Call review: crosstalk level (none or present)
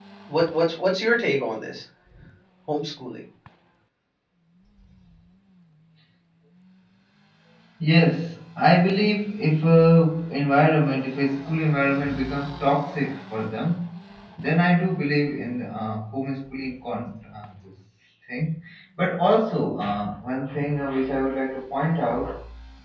none